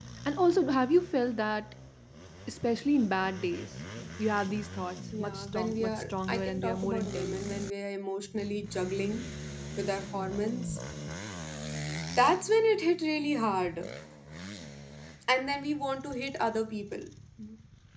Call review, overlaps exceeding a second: present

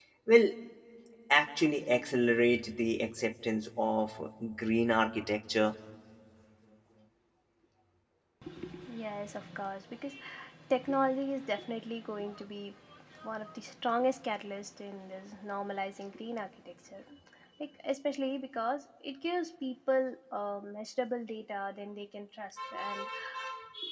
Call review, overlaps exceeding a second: none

